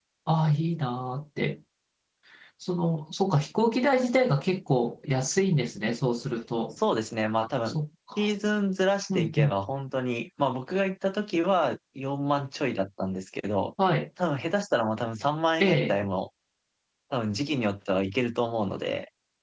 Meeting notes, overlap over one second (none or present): none